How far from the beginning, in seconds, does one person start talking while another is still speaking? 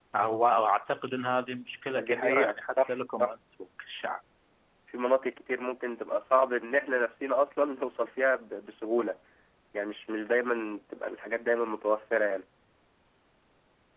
1.9 s

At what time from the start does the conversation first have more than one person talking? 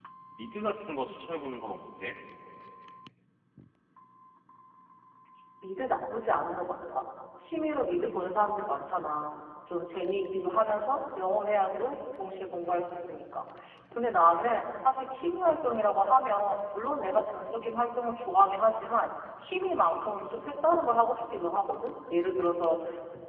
none

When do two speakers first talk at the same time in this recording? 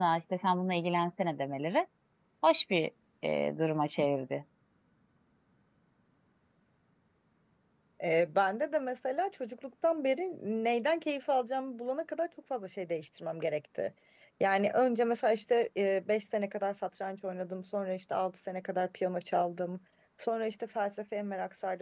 none

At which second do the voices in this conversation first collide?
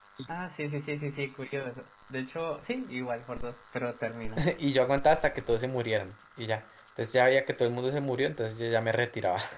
none

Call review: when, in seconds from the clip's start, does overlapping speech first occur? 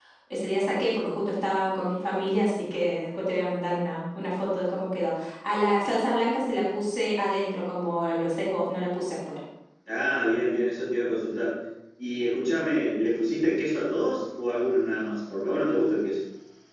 none

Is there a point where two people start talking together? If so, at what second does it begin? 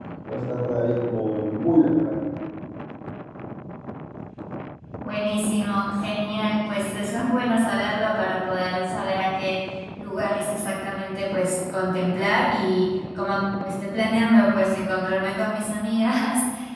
none

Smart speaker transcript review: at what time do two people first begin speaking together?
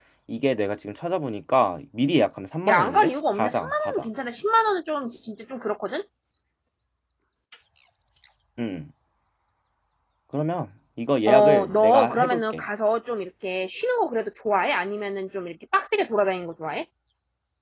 2.7 s

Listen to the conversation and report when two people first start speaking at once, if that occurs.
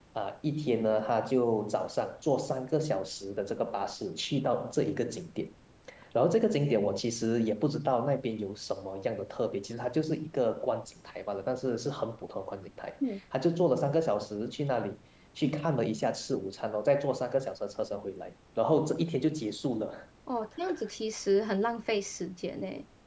none

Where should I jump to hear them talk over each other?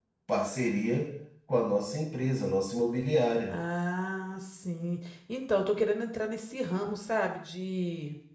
none

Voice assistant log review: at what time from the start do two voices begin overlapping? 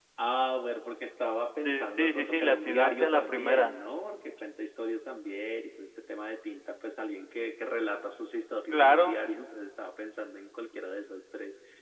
1.6 s

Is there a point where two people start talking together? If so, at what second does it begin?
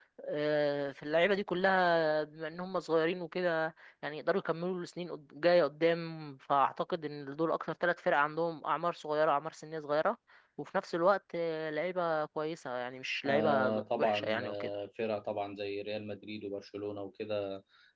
13.2 s

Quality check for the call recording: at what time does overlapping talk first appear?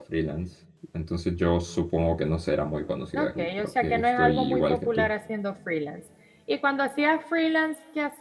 3.1 s

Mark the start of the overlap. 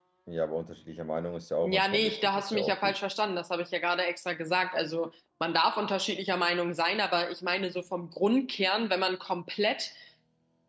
1.6 s

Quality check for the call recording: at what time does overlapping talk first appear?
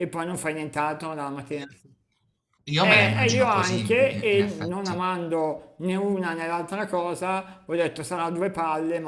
2.8 s

